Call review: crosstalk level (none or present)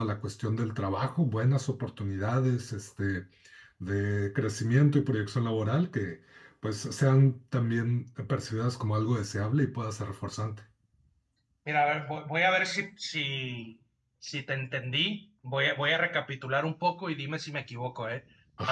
none